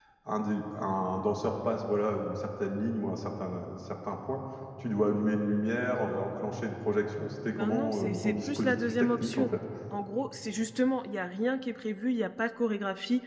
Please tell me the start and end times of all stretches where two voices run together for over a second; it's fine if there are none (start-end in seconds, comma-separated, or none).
7.5-9.5